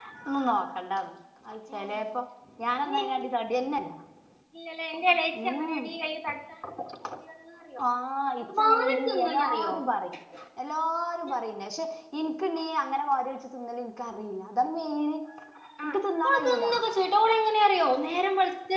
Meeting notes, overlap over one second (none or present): present